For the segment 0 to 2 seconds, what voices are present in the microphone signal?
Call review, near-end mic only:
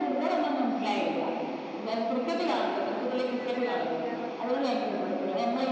echo only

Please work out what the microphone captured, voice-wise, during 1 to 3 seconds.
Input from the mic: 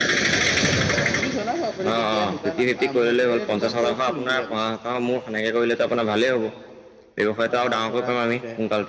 echo only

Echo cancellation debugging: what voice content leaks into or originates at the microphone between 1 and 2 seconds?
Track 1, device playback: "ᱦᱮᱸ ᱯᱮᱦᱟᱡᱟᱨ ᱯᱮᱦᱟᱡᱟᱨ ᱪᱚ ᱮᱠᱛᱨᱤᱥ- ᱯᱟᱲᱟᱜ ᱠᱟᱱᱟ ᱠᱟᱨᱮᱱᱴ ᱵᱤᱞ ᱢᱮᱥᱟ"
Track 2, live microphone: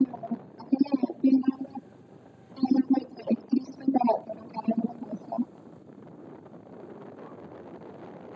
echo only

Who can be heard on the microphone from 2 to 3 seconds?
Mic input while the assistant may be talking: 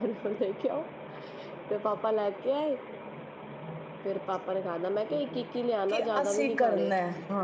echo only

